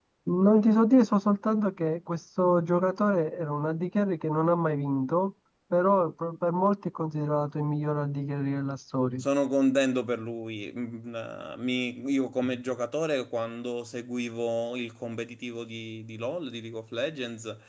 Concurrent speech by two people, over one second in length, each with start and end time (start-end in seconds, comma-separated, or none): none